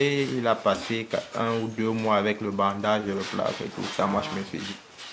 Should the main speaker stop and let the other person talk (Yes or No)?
No